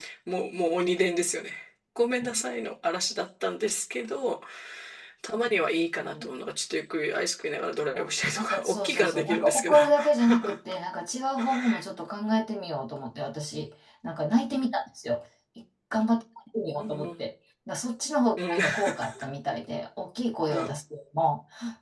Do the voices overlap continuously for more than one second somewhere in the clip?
Yes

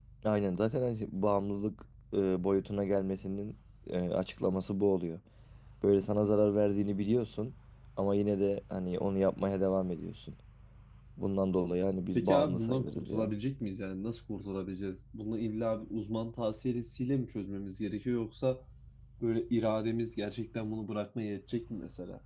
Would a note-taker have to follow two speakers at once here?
Yes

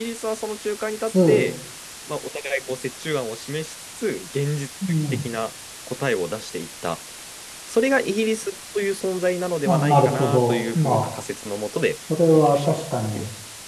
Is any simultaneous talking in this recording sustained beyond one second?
Yes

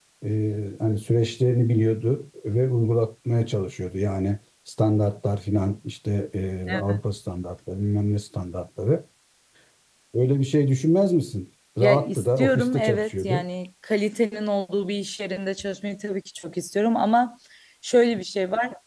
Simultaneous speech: Yes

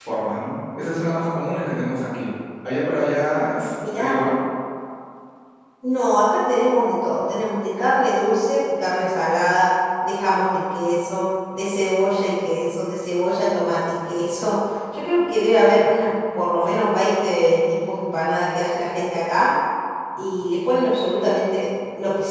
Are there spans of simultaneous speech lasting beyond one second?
No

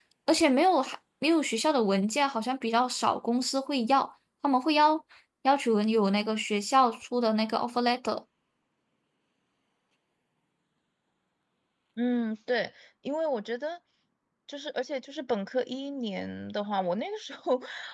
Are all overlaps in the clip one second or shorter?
Yes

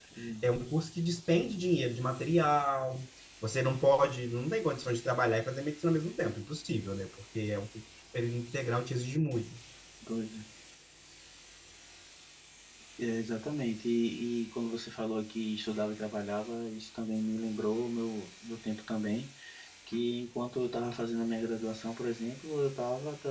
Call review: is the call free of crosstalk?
Yes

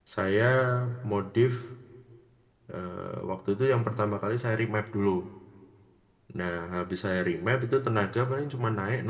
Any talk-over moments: No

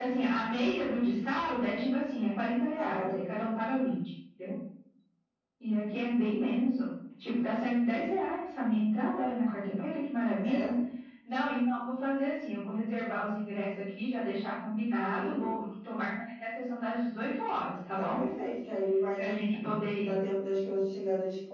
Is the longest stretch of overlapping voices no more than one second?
Yes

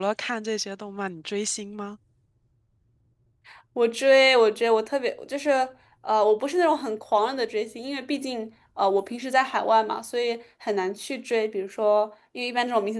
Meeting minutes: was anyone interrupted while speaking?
No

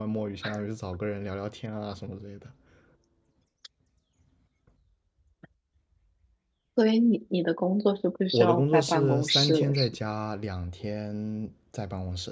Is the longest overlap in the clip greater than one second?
Yes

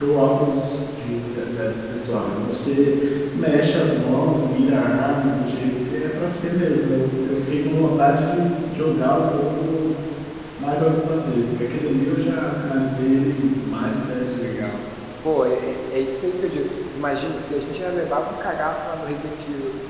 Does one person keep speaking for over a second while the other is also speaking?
No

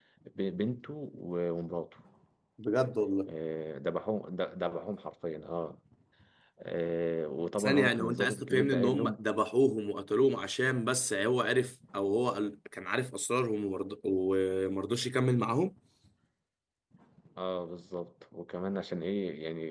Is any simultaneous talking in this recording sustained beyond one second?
Yes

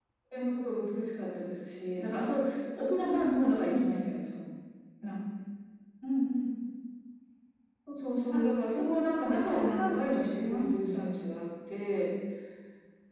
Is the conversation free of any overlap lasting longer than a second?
No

